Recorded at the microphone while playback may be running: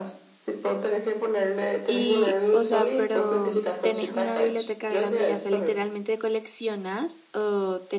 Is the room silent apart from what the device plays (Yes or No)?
No